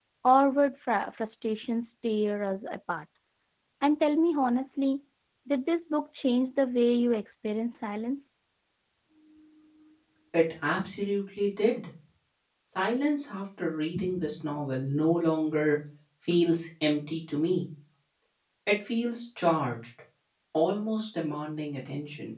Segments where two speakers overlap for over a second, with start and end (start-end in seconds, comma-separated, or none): none